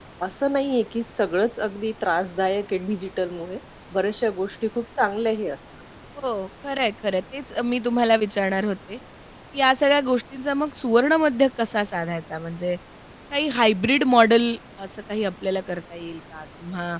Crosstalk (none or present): none